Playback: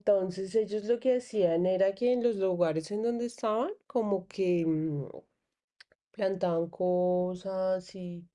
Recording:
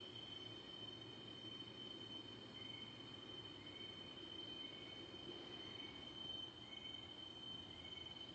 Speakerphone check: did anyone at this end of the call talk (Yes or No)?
No